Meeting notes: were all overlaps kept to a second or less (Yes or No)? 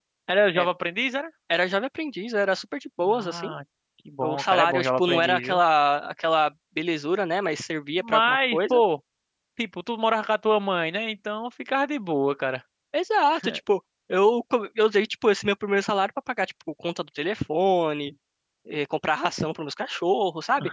No